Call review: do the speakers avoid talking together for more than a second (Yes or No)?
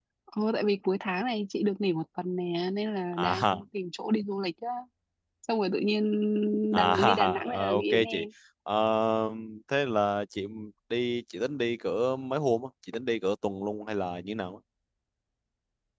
No